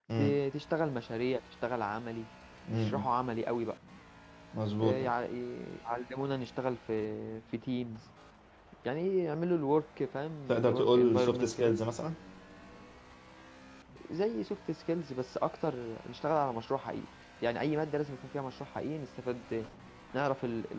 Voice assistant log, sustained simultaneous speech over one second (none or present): present